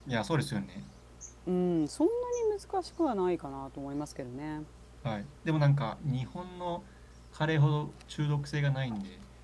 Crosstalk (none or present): none